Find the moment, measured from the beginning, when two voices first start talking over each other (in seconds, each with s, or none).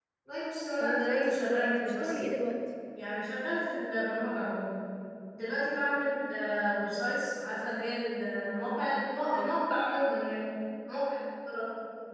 0.8 s